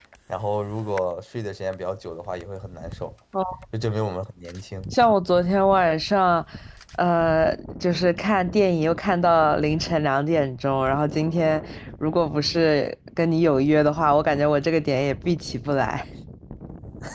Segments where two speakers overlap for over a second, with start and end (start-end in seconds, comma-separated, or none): none